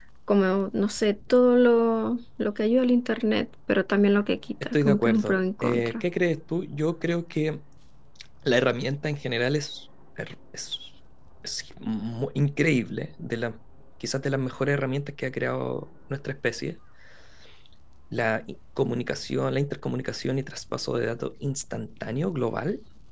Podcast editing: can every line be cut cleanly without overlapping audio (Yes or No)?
No